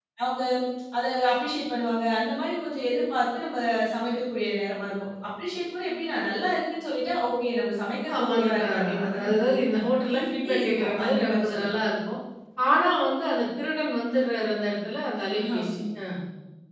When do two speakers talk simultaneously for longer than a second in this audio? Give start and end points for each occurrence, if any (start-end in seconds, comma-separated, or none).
8.2-9.6, 10.2-11.7